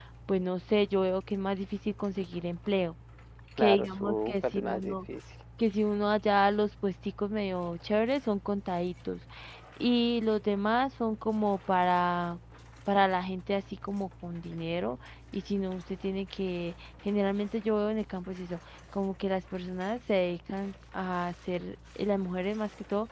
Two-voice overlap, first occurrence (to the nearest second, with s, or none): 4 s